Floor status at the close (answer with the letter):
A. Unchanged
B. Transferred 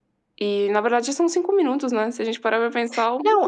B